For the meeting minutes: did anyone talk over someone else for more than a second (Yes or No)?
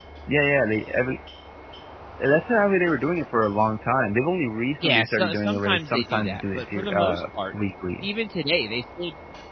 Yes